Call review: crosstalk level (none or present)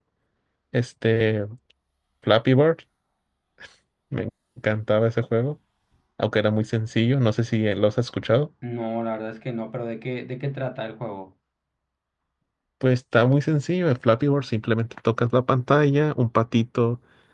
none